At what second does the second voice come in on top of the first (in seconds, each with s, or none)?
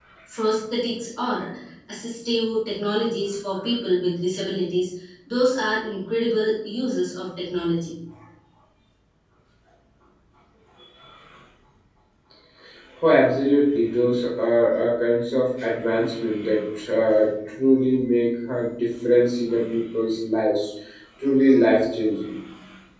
none